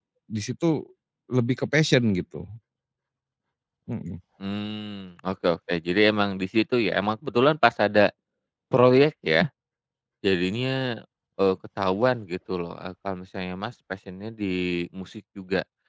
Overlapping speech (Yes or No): No